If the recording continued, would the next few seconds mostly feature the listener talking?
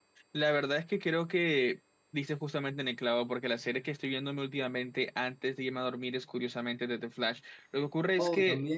No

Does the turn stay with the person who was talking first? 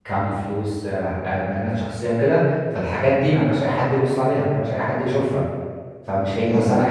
Yes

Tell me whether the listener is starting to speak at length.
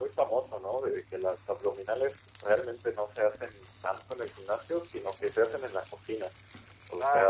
No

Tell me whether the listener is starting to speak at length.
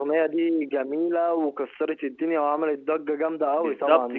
Yes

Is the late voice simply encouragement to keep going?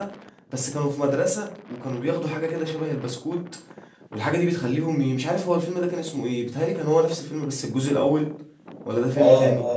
No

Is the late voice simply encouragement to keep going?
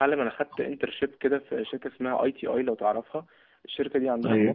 Yes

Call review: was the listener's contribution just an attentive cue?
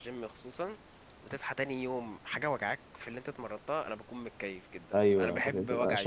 No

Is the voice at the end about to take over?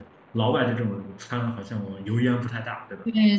No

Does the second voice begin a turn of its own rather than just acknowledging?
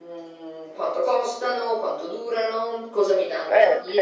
No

